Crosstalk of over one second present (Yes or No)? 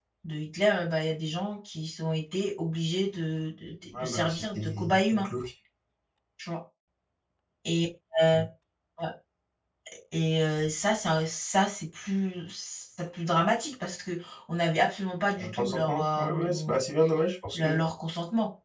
Yes